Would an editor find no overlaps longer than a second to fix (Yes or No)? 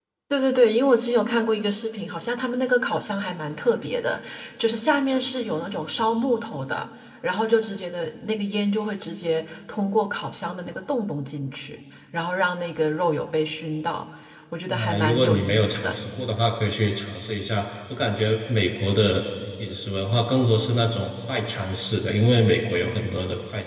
No